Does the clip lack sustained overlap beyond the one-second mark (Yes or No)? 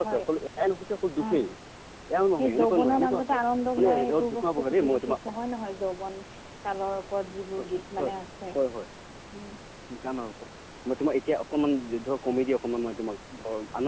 No